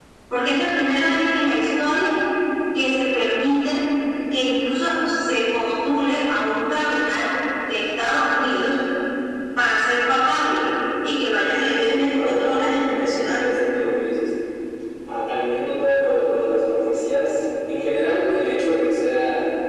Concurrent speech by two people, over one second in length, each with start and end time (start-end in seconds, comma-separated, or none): 11.8-13.5